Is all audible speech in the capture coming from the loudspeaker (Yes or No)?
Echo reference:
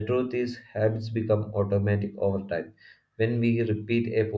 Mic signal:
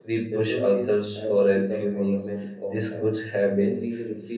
No